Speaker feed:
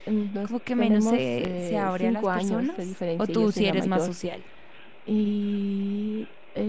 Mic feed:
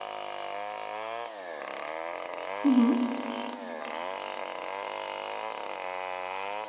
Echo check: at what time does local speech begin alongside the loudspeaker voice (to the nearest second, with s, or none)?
3 s